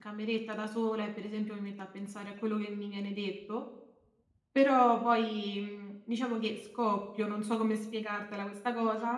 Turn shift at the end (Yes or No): Yes